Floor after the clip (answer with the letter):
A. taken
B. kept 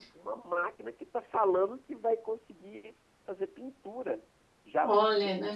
B